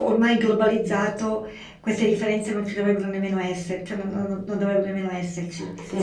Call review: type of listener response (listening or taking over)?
taking over